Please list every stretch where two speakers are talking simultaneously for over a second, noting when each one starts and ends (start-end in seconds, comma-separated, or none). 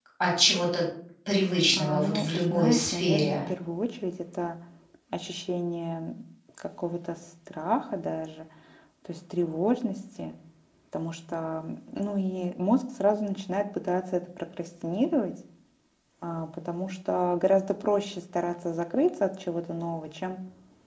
1.7-3.4